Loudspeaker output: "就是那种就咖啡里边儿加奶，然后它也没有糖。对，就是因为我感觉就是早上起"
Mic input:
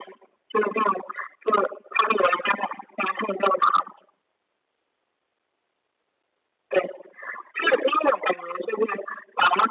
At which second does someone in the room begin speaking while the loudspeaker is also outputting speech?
none

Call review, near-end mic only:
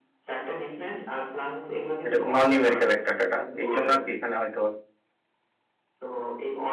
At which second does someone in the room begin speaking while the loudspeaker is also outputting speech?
2.0 s

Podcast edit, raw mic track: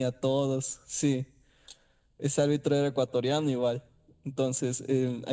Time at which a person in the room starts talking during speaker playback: none

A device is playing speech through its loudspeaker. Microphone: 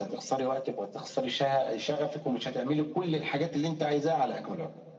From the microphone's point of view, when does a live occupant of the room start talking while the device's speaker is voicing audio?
none

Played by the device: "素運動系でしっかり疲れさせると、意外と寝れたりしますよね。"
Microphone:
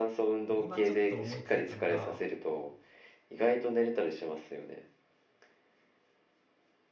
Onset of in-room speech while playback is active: 0.5 s

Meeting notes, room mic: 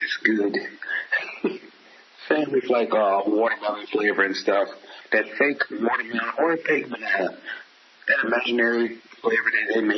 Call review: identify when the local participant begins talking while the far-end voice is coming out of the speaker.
none

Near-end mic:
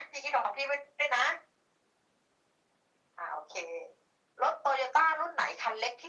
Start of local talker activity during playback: none

